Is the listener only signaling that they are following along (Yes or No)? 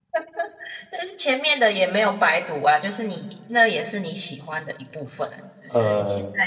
Yes